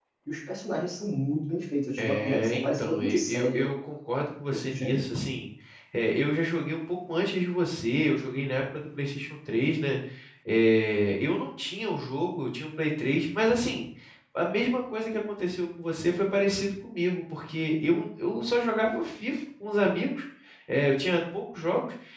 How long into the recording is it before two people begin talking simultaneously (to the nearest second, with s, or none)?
2 s